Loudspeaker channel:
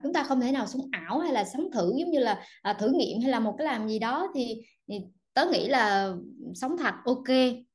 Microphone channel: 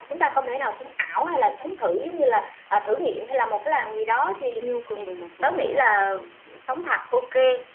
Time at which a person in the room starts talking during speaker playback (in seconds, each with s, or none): 4.6 s